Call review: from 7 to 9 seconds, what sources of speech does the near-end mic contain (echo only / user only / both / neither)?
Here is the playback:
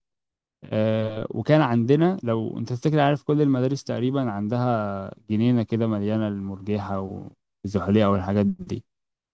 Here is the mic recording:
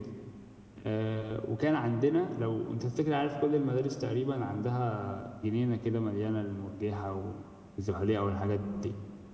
echo only